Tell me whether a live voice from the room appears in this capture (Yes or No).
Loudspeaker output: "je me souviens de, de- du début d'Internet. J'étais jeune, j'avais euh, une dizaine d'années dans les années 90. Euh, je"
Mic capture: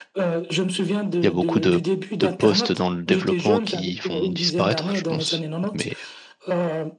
Yes